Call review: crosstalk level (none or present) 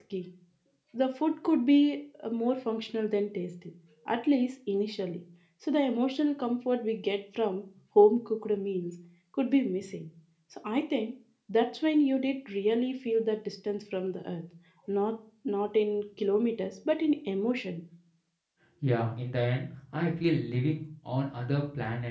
none